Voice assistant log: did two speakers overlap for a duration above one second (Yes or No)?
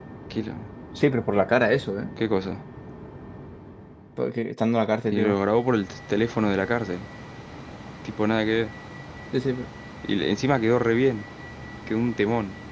No